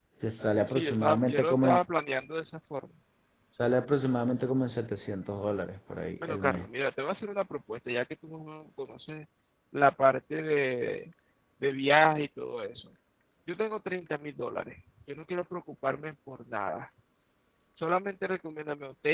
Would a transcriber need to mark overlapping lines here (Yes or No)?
Yes